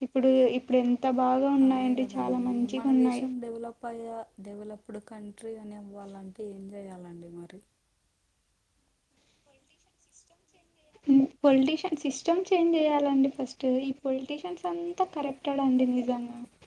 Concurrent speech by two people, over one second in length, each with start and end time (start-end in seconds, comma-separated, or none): 1.7-3.2